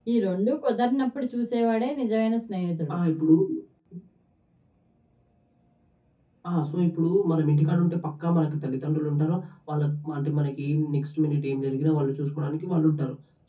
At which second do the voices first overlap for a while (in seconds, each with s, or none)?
none